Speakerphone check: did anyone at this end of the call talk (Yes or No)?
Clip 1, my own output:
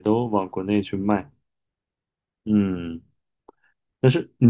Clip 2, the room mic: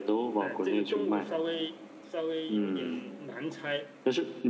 Yes